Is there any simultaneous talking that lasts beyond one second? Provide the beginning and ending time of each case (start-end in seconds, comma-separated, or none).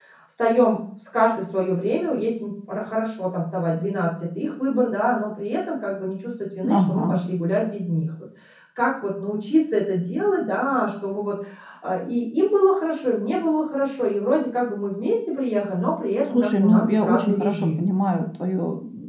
16.3-17.8